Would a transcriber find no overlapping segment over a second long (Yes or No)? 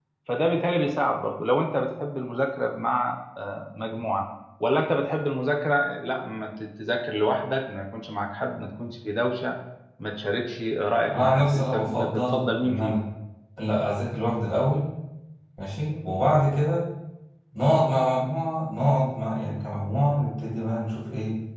No